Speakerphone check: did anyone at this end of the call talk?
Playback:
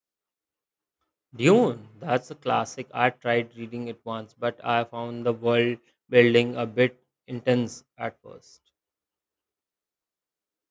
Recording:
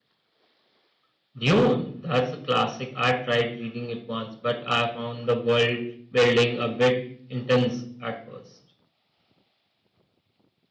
No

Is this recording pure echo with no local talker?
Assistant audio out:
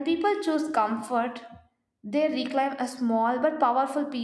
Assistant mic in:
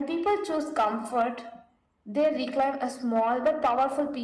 Yes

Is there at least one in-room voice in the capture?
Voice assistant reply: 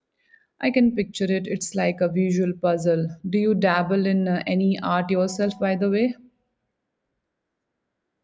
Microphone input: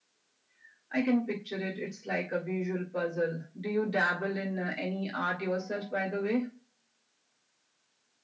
No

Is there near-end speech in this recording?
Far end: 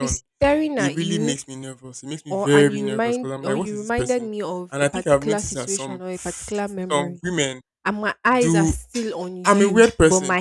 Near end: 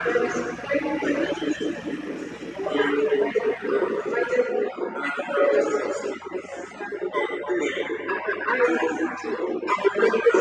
No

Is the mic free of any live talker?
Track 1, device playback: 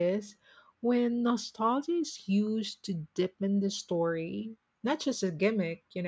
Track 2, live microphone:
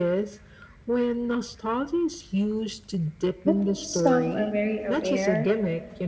No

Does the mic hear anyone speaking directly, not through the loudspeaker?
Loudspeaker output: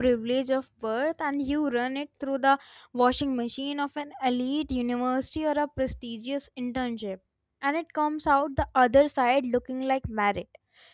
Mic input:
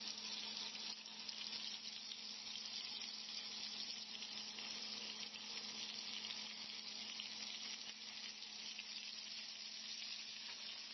No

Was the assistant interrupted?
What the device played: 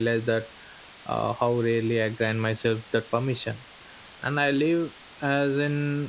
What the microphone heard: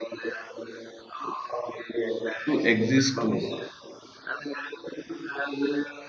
Yes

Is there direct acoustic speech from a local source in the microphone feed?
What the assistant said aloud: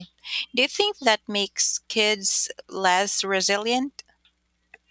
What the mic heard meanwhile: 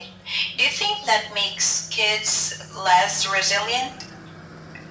No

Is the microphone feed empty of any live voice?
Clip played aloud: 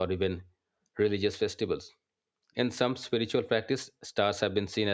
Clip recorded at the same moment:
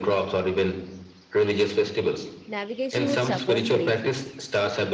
No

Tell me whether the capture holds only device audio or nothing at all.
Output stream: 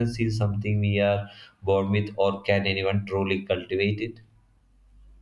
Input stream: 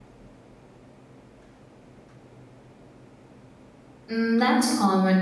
No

